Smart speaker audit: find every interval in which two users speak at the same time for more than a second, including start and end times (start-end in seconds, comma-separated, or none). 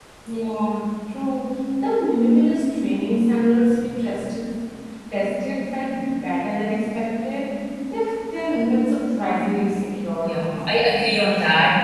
none